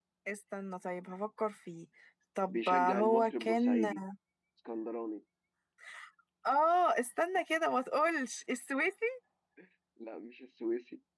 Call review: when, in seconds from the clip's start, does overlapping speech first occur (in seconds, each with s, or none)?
2.5 s